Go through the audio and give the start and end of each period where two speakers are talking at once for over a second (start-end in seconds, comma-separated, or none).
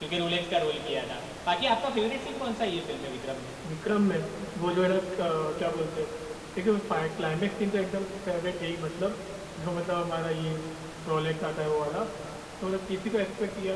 none